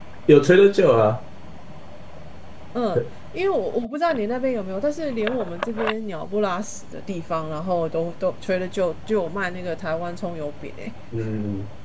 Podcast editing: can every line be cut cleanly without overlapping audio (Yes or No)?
Yes